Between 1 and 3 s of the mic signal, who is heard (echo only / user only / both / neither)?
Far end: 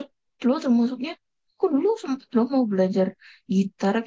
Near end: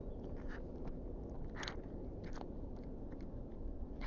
neither